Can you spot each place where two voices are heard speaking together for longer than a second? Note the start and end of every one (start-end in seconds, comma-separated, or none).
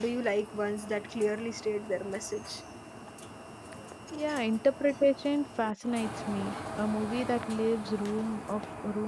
none